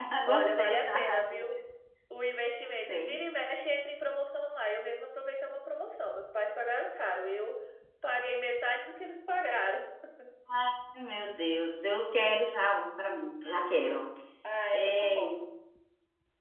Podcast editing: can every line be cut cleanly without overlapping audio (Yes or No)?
No